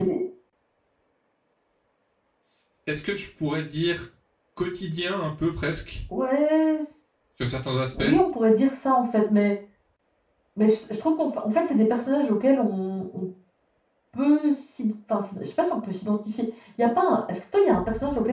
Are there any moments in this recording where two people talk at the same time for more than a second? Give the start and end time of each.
none

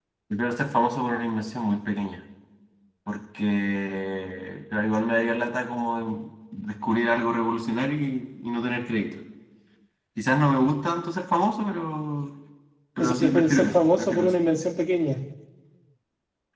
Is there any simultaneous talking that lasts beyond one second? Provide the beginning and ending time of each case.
13.0-14.3

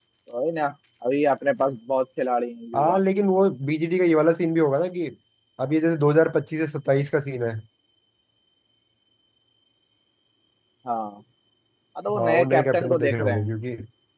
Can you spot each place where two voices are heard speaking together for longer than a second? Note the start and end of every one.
12.1-13.5

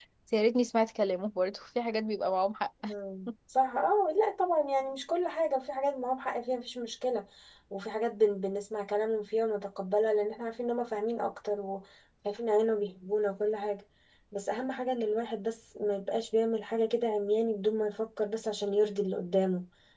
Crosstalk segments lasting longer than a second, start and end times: none

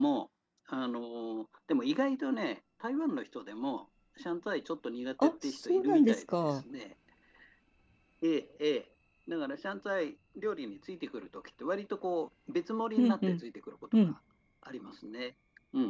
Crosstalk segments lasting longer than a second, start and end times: 5.2-6.6

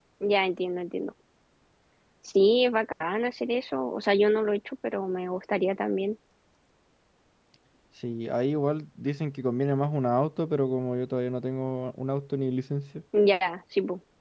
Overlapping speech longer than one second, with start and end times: none

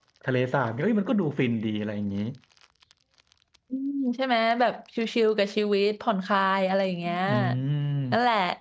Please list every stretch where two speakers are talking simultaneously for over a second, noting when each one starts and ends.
none

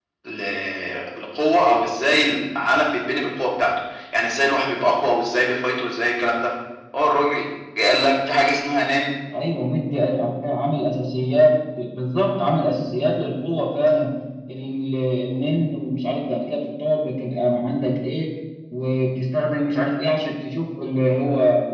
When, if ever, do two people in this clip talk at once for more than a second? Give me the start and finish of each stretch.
none

